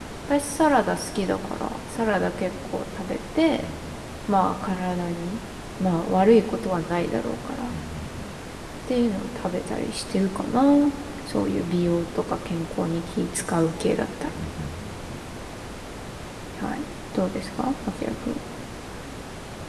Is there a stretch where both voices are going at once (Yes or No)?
No